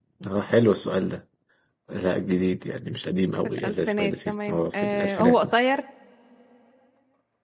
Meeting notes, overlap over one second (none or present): present